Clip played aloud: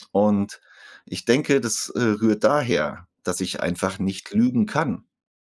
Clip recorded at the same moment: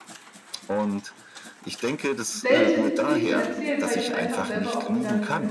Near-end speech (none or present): present